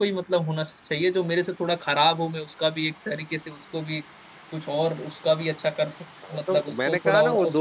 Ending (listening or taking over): taking over